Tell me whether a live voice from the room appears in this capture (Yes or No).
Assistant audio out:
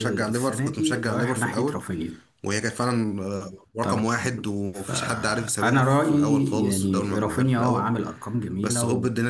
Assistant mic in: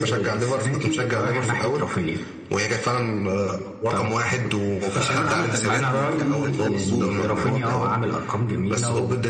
Yes